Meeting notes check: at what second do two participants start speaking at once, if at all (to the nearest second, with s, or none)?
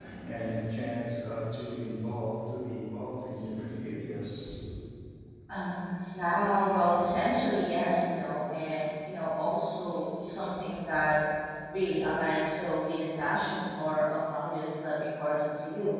none